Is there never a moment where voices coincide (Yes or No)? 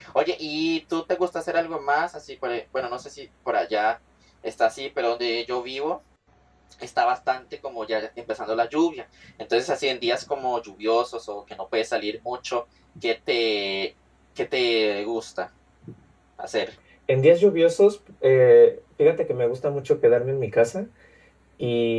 Yes